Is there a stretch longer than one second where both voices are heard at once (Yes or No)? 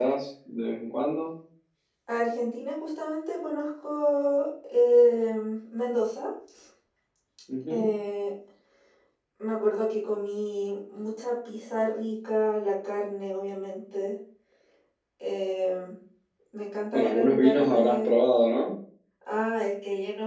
Yes